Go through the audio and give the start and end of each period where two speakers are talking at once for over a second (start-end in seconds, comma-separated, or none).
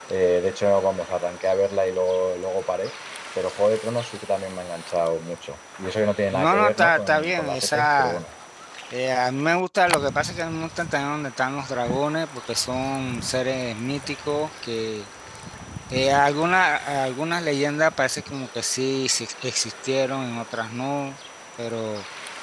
6.3-8.2